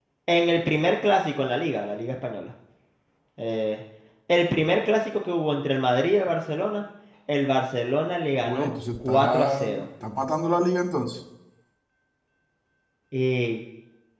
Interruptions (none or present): present